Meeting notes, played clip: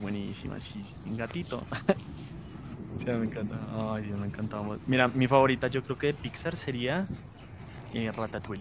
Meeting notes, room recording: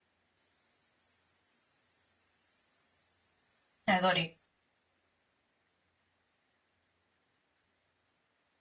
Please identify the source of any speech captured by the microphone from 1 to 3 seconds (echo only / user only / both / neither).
neither